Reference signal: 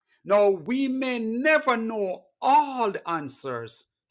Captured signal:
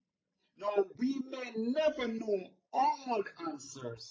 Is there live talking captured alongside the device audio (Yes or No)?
No